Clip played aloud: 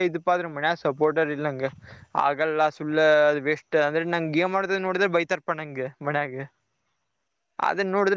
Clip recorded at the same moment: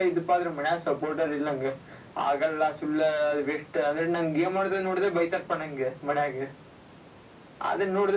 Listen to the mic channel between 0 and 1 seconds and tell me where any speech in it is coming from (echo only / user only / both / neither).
echo only